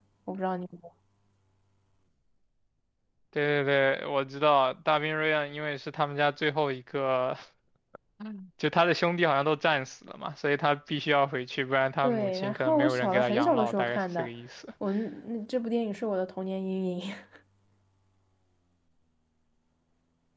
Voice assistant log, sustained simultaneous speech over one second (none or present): present